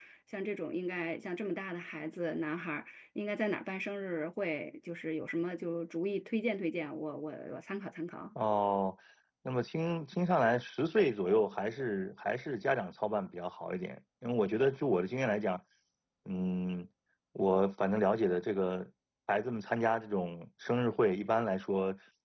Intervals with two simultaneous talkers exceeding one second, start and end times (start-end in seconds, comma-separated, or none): none